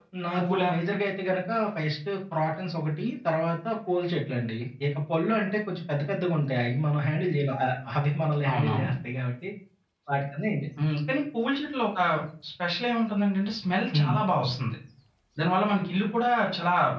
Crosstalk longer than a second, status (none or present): none